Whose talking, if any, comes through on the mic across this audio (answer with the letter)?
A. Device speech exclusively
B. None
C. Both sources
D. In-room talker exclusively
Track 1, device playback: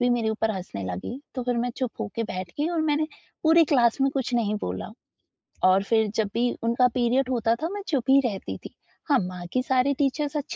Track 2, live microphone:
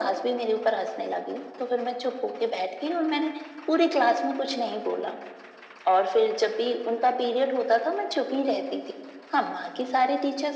A